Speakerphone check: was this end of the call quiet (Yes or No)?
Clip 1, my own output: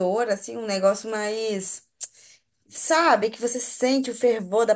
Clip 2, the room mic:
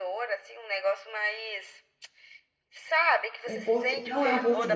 No